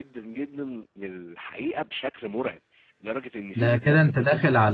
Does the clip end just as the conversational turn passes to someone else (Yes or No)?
Yes